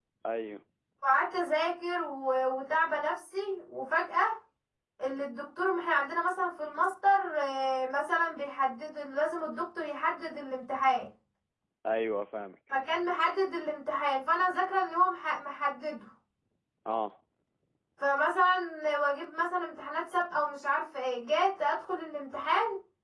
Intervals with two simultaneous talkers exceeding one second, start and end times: none

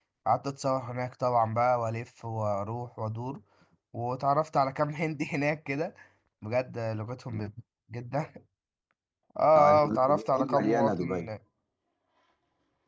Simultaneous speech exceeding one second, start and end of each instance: 9.6-11.3

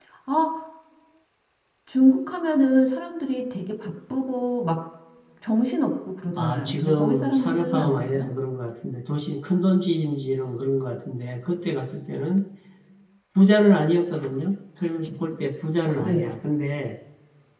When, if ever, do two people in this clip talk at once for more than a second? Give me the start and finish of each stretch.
6.4-8.3

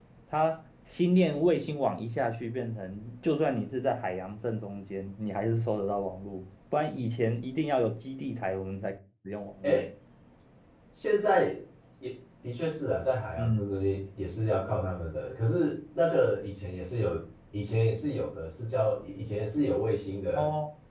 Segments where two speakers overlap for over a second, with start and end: none

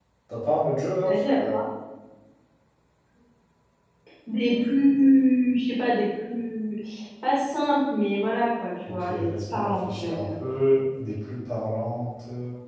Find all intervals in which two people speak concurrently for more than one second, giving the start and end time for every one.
8.9-10.3

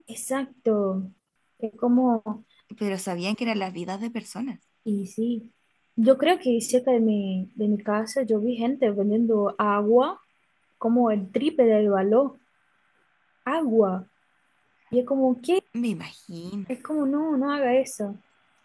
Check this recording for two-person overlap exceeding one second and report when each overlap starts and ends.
none

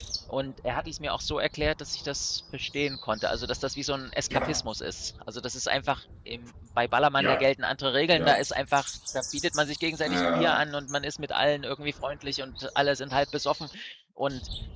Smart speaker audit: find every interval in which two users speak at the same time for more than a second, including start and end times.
none

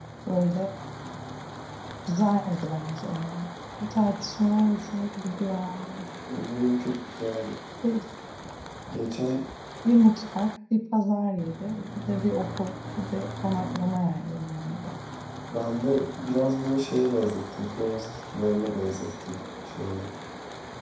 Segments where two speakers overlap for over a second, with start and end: none

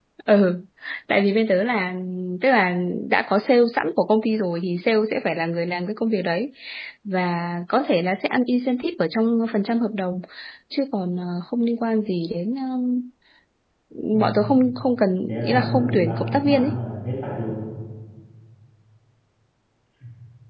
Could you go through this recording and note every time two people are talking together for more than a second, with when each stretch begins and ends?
15.3-16.8

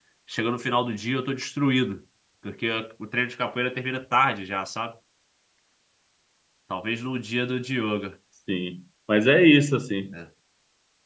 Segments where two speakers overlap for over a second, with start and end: none

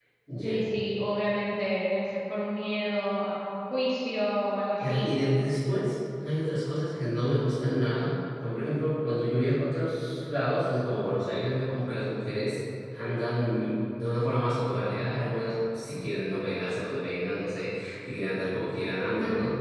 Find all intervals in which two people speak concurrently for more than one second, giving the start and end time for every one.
none

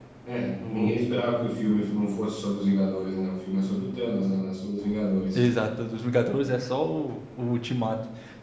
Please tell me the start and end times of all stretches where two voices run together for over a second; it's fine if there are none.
none

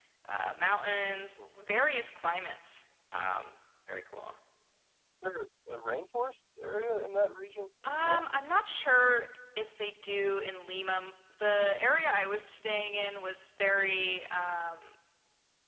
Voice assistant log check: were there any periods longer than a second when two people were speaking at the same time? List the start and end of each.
none

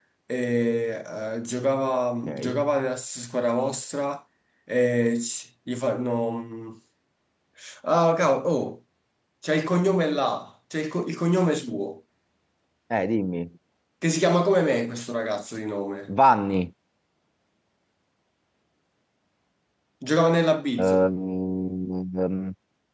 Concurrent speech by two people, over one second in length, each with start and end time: none

